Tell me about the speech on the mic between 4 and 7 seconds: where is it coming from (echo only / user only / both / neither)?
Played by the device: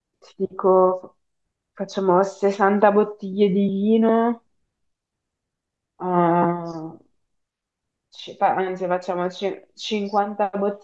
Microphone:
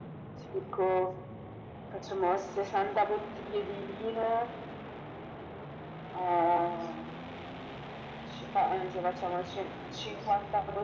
echo only